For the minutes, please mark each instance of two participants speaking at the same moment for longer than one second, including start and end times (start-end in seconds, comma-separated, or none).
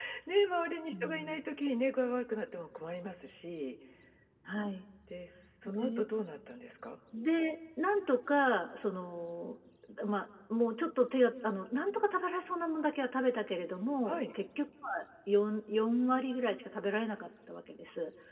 none